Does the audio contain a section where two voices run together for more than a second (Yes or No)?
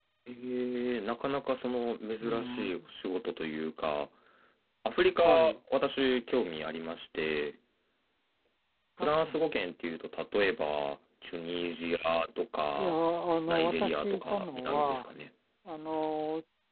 Yes